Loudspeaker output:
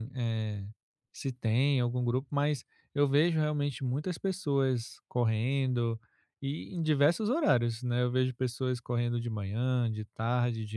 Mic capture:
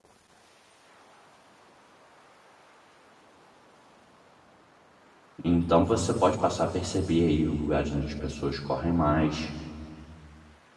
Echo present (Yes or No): No